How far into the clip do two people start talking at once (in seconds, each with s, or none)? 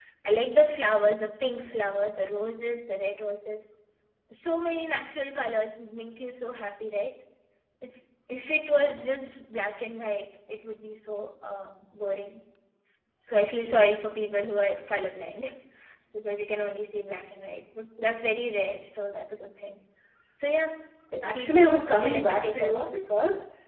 21.2 s